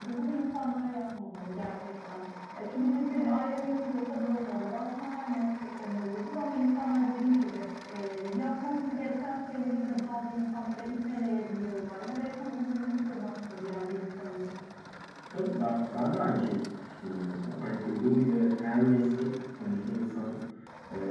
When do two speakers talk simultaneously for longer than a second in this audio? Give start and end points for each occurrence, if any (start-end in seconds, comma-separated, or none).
none